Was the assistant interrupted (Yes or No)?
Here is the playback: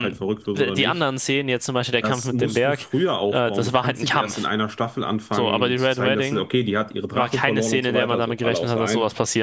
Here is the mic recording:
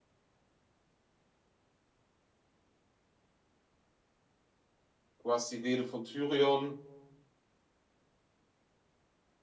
Yes